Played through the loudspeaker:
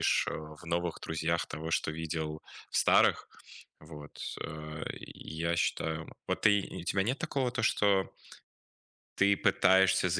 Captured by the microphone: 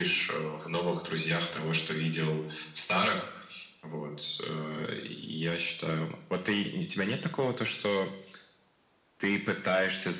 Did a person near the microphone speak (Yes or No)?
No